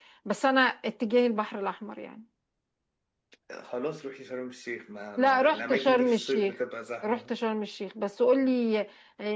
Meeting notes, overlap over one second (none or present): present